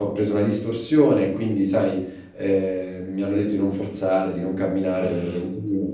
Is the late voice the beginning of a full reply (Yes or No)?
No